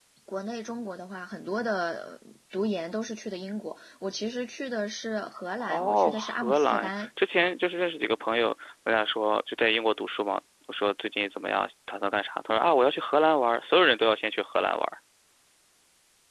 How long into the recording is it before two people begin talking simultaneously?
5.6 s

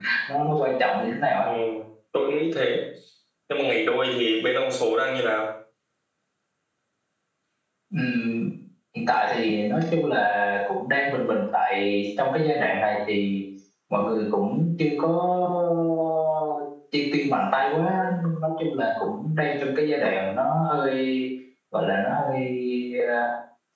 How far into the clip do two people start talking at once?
none

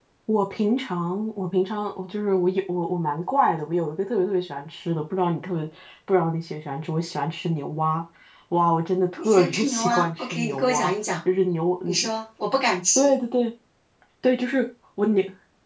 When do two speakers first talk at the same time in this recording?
9.2 s

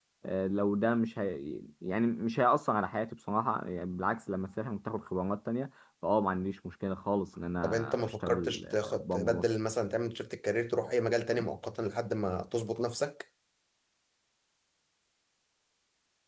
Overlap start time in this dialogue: 7.6 s

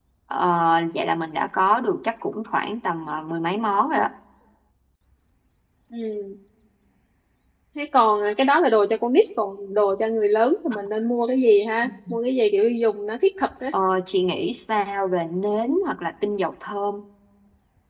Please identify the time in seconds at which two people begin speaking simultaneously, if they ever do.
none

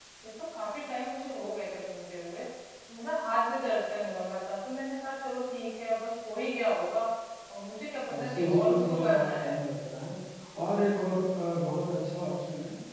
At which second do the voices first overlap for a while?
8.1 s

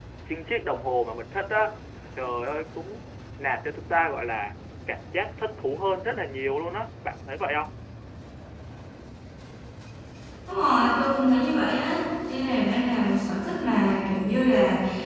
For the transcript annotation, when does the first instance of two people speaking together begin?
none

